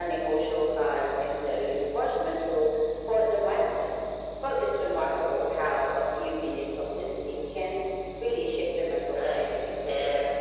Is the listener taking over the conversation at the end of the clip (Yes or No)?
Yes